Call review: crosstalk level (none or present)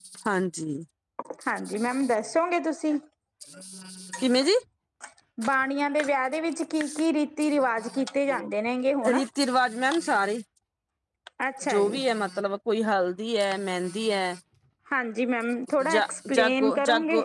present